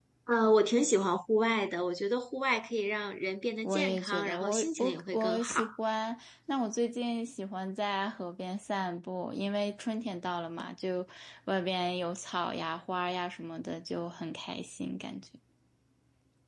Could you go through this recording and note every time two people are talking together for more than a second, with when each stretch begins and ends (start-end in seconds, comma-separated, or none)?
3.6-5.5